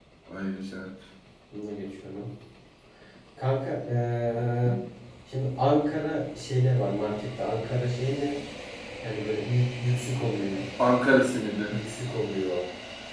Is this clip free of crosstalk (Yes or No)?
Yes